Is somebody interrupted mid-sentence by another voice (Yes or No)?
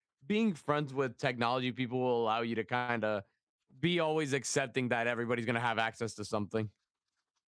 No